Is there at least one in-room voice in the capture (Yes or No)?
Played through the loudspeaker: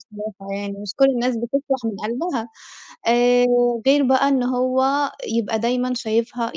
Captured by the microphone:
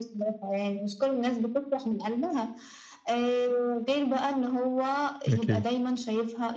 Yes